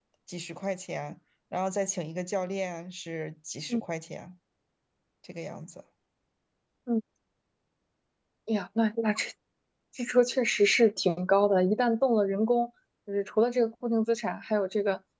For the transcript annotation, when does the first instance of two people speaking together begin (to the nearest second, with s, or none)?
none